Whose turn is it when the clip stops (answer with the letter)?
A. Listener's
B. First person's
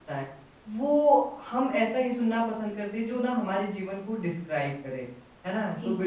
B